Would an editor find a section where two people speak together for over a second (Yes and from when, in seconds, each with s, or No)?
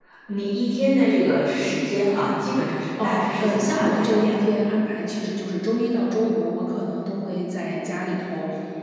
Yes, from 3.0 s